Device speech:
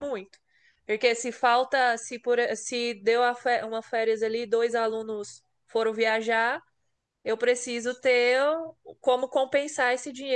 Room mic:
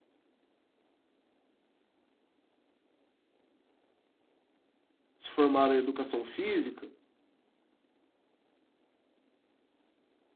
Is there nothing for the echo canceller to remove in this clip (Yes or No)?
Yes